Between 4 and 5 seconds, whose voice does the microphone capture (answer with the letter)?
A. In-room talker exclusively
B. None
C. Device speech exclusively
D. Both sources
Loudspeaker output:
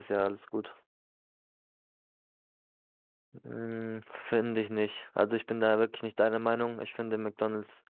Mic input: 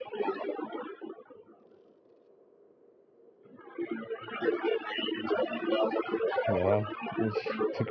C